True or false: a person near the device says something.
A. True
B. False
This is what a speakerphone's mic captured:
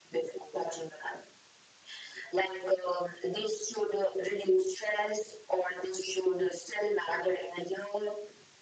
B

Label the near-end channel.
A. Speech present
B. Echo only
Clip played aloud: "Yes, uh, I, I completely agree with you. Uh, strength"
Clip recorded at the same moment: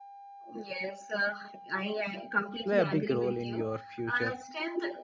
A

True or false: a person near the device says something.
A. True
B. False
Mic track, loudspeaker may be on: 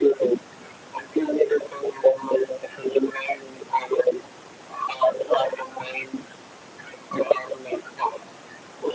B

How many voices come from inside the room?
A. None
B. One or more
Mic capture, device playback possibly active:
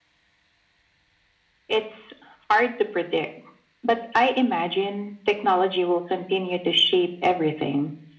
A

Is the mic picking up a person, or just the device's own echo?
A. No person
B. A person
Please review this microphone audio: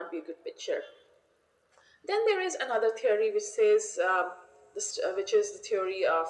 A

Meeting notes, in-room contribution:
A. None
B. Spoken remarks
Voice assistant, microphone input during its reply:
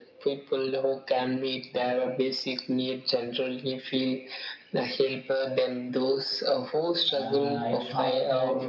B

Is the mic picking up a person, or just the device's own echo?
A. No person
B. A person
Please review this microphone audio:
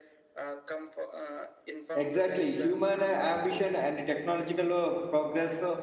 B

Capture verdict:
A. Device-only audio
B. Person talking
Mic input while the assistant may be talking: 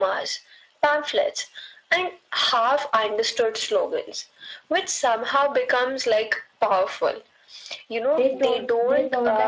B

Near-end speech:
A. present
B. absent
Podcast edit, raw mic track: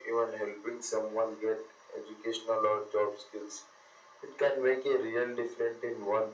B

